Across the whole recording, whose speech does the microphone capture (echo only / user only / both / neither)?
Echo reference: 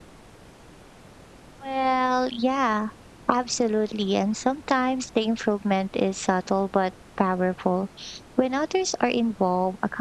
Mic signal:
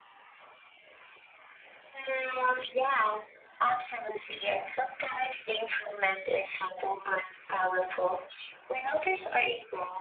echo only